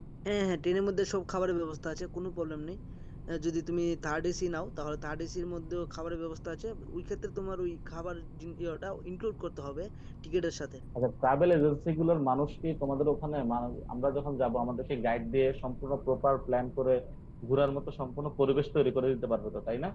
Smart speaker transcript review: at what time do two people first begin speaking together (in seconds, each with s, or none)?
none